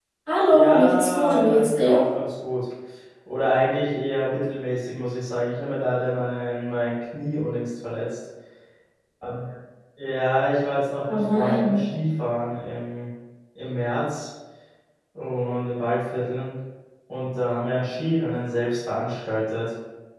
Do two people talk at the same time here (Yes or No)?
Yes